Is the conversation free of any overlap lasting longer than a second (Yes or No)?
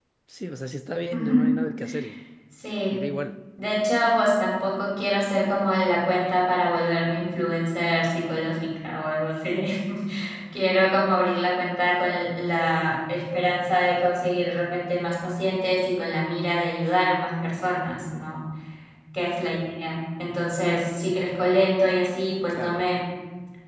Yes